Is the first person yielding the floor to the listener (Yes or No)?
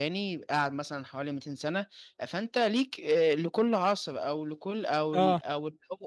No